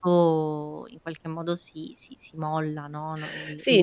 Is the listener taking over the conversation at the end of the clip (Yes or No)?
Yes